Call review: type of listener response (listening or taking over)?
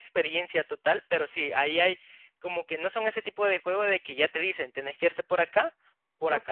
taking over